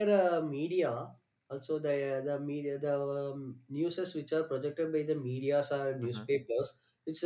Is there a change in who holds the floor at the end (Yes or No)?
No